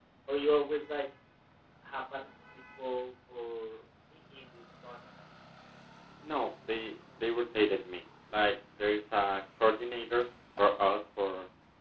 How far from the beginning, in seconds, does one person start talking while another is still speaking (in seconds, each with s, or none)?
none